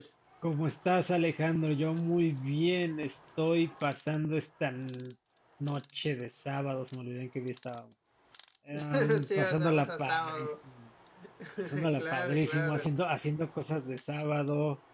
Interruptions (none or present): present